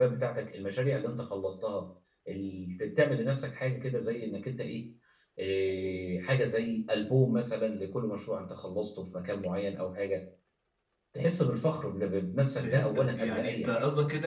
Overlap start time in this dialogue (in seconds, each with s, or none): 12.6 s